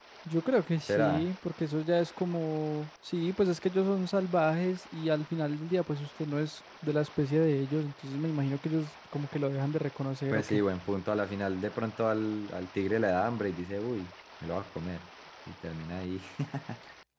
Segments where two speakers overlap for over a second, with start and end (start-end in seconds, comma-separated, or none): none